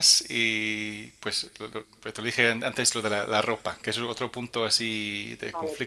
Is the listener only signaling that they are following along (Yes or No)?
No